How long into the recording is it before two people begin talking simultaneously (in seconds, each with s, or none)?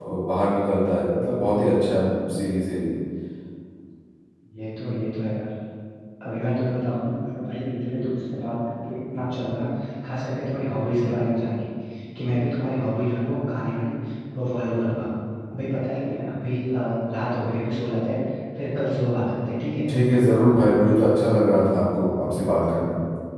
none